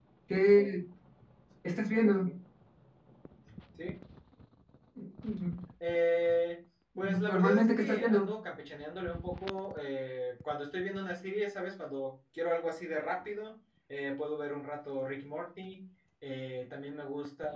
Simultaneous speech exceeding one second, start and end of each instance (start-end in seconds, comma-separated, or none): 7.0-8.3